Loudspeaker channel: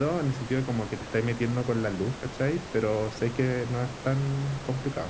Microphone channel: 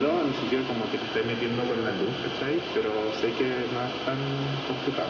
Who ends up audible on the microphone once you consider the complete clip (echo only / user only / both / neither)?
echo only